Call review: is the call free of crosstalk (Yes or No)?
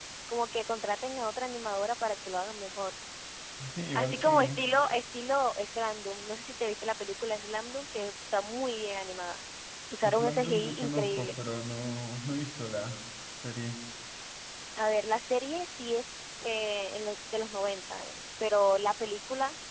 No